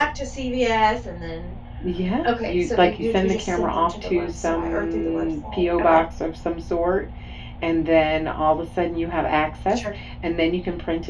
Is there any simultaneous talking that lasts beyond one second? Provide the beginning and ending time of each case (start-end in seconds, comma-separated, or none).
2.4-6.0